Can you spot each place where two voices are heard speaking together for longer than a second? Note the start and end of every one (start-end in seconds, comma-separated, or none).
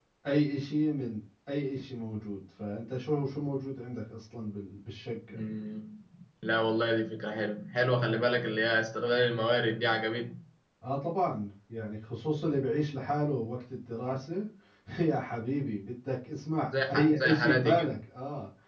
16.7-17.9